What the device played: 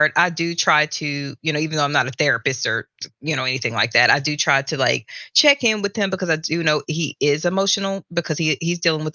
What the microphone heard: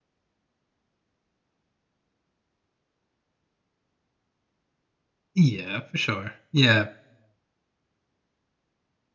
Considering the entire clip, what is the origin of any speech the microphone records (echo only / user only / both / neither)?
user only